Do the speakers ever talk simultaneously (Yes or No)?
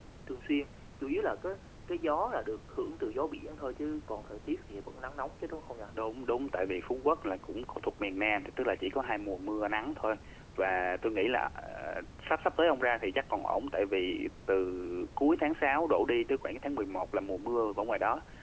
No